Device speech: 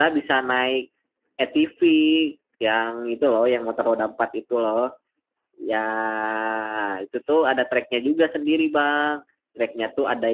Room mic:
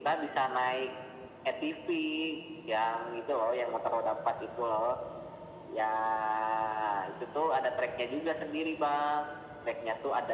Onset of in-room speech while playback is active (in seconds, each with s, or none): none